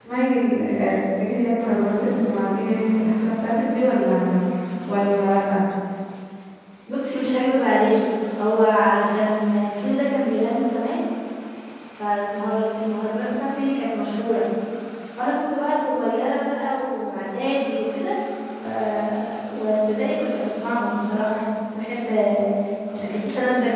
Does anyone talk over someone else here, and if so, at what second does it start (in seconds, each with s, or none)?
none